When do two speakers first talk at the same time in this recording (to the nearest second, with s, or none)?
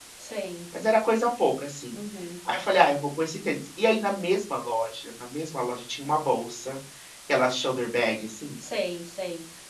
none